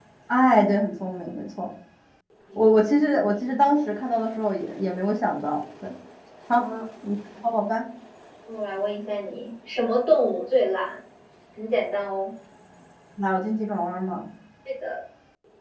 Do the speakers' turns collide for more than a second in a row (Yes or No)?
No